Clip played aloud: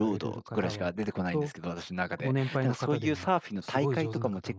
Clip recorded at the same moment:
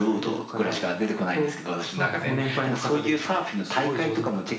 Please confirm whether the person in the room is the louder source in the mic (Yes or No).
No